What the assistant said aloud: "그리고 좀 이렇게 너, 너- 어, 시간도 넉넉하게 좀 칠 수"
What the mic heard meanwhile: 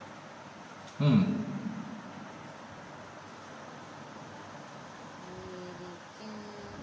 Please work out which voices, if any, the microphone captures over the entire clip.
user only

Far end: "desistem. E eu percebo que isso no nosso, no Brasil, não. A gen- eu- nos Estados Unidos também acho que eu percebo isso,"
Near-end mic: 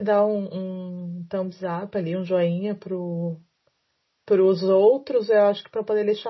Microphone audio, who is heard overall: user only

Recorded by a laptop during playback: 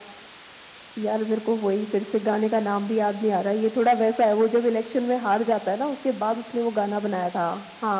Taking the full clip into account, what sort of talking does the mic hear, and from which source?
echo only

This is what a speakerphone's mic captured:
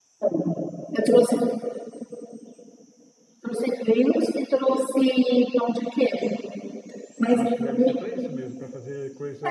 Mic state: both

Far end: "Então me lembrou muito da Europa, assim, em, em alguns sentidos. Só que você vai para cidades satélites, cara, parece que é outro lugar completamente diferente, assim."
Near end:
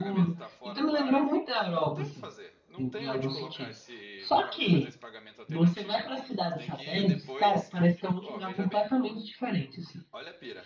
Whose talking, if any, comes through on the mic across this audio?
both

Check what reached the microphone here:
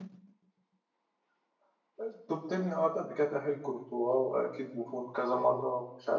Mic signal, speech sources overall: user only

